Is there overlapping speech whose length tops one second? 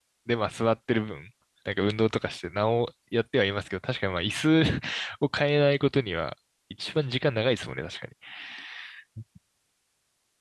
No

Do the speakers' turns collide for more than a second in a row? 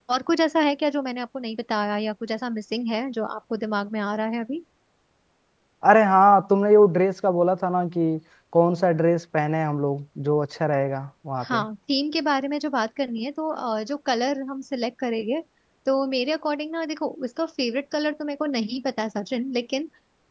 No

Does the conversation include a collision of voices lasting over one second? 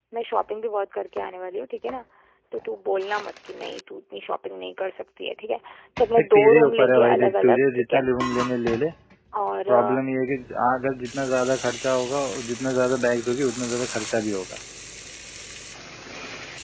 Yes, from 6.2 s

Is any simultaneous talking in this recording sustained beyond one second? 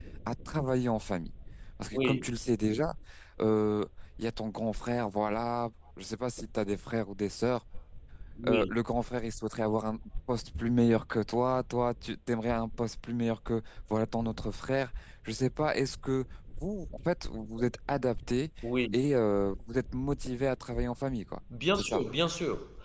No

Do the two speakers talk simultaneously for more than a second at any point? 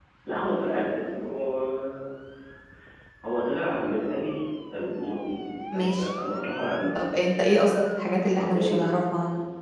No

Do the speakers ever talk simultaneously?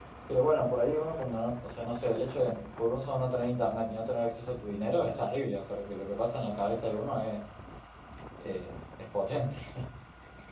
No

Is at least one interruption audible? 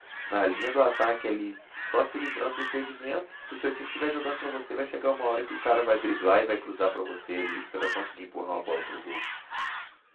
No

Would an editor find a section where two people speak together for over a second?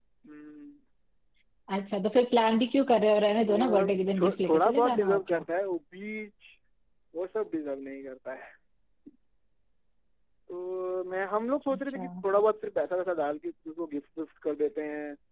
Yes, from 3.4 s

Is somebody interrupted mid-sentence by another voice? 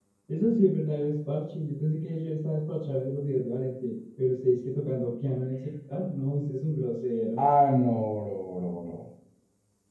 No

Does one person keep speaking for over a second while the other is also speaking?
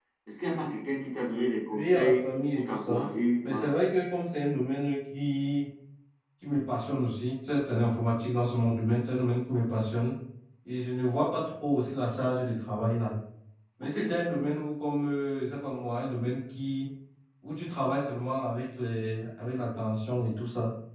Yes, from 1.7 s

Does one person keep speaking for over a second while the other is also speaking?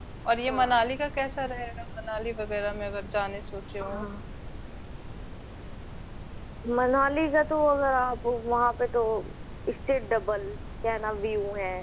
No

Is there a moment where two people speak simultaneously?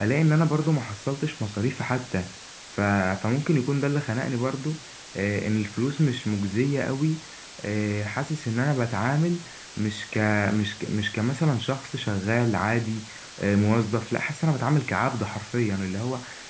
No

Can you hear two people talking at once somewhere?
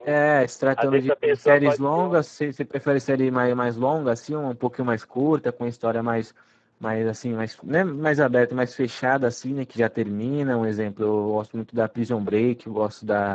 Yes, from 0.8 s

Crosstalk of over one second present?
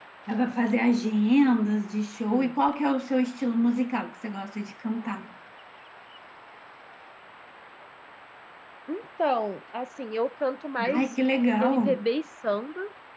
No

